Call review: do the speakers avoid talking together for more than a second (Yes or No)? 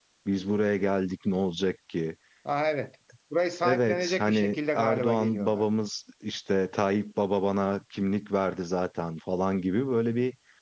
No